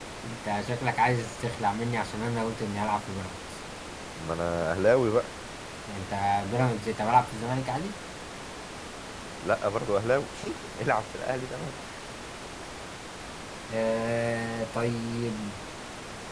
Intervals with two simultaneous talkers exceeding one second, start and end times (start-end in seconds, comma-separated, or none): none